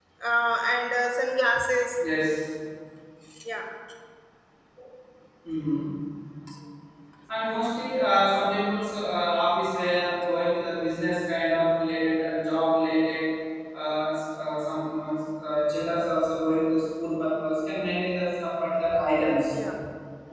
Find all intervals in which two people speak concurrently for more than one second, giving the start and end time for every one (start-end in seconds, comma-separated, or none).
none